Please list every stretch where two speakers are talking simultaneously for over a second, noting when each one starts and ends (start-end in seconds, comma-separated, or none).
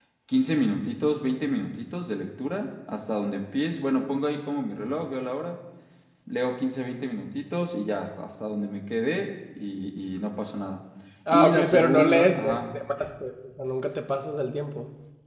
11.3-12.6